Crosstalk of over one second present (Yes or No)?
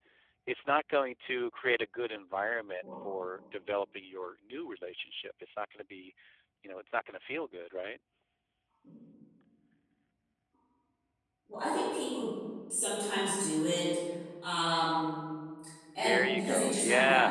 Yes